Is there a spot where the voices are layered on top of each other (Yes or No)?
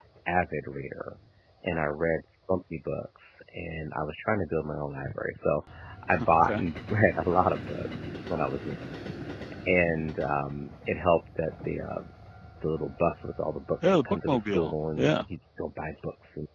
Yes